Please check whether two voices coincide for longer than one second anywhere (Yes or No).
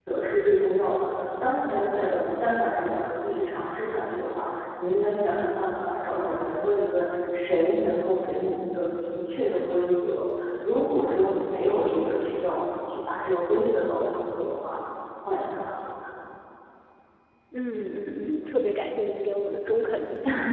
No